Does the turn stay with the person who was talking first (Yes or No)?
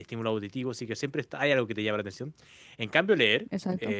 Yes